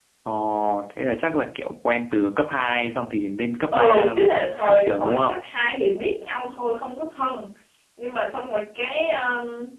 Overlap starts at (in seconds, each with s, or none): 3.7 s